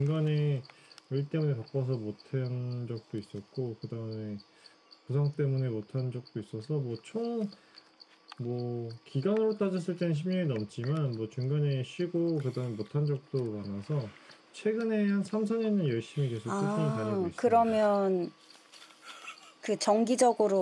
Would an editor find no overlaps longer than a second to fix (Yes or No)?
No